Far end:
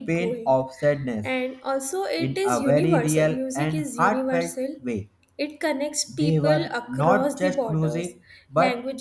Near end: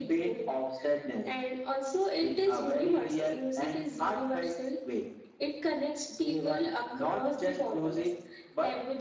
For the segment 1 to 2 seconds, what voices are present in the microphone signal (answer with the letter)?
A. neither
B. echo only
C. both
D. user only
B